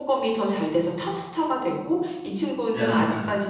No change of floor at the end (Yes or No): Yes